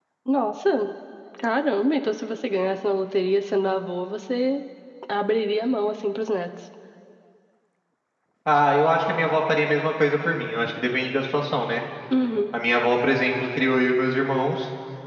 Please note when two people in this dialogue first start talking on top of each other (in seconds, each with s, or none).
none